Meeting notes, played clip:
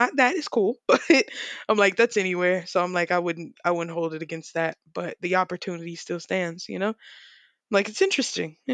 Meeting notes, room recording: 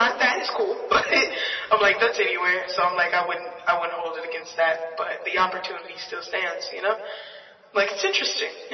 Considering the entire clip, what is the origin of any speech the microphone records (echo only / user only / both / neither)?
echo only